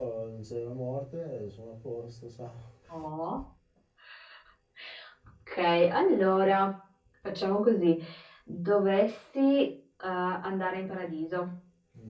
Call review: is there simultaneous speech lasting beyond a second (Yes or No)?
No